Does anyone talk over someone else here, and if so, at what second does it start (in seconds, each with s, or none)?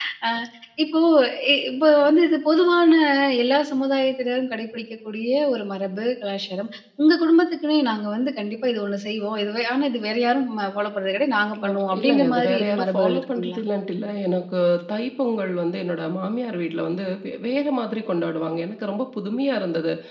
11.5 s